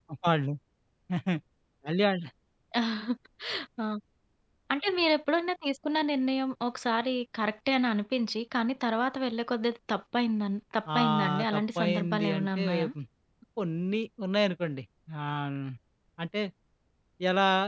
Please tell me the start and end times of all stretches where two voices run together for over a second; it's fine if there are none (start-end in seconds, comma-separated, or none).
11.0-12.9